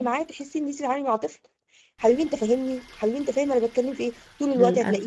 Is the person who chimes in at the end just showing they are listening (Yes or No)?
Yes